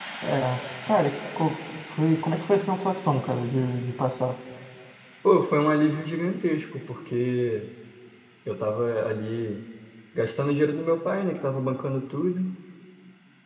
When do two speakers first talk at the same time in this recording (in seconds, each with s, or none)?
none